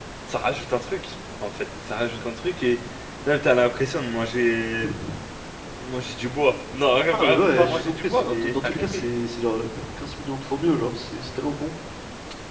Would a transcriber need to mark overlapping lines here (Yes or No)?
Yes